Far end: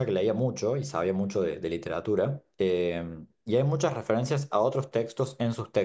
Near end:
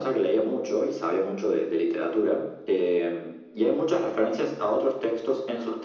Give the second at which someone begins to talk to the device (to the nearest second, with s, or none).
none